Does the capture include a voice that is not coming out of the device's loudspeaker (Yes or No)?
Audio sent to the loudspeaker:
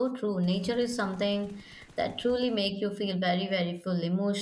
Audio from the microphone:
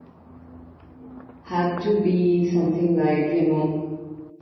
Yes